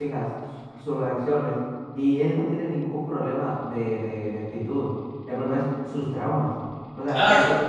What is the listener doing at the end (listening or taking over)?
listening